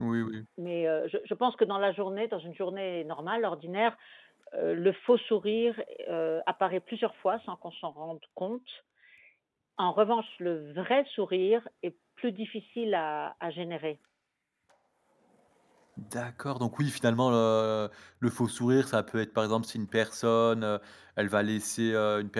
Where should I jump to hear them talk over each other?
none

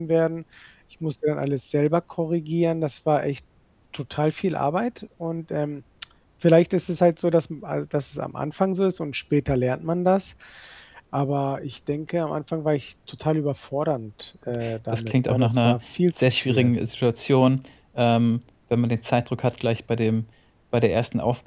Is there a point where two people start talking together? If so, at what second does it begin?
14.5 s

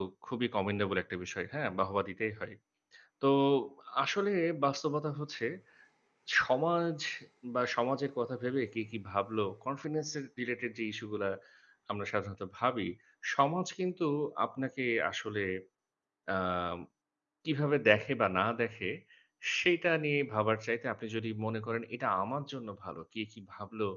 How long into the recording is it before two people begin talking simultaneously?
none

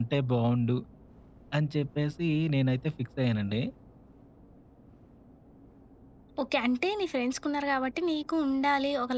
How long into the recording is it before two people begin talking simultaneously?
none

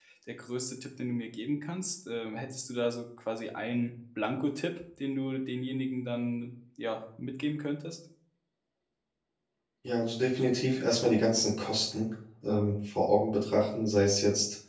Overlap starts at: none

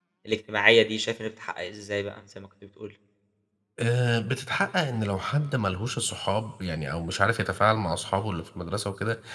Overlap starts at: none

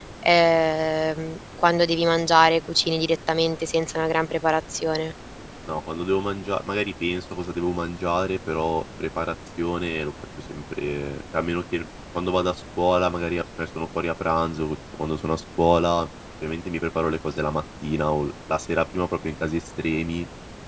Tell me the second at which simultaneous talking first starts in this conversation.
none

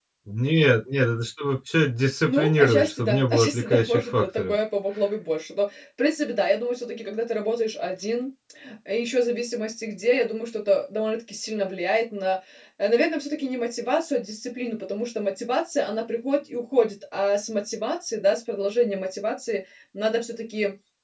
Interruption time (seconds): 2.2 s

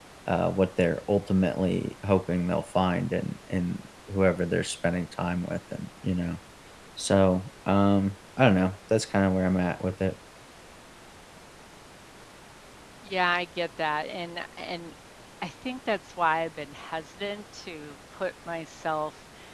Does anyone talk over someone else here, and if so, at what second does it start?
none

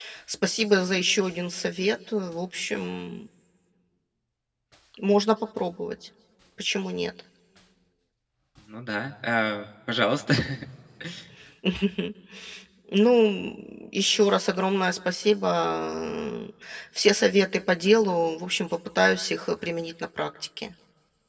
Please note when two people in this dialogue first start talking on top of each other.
none

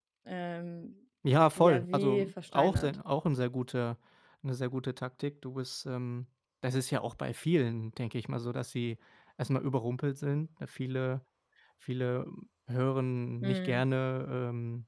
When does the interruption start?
1.6 s

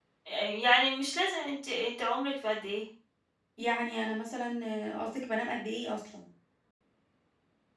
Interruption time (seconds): none

